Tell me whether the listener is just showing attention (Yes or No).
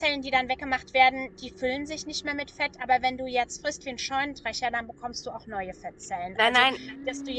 Yes